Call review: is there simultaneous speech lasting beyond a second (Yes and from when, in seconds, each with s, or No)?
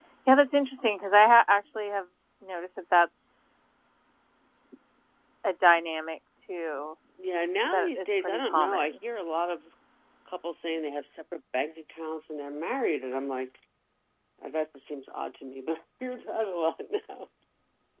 Yes, from 7.6 s